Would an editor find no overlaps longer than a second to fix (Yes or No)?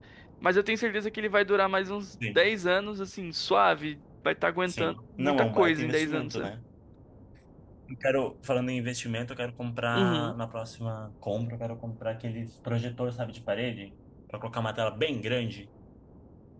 No